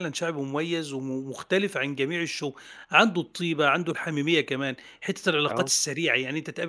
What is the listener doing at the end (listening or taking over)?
listening